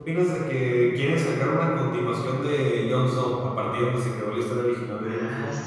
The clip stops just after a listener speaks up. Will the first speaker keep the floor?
No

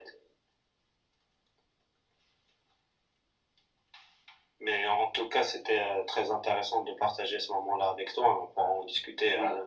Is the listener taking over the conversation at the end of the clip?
Yes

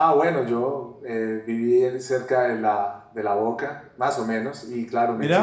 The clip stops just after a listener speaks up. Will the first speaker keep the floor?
Yes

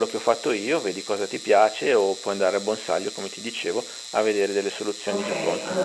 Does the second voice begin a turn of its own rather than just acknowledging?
Yes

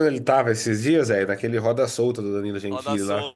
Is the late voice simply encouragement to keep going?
No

